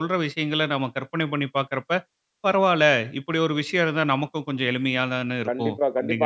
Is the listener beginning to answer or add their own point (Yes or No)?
Yes